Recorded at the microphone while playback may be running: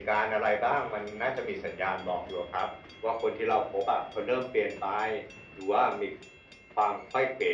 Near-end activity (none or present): none